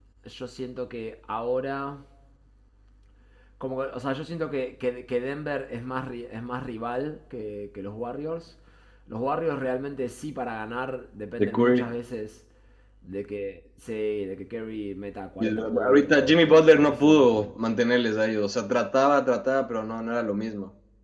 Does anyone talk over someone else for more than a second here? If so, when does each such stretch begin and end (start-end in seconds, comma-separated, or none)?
15.4-17.5